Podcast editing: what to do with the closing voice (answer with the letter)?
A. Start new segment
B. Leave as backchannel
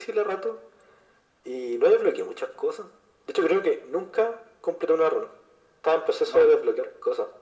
B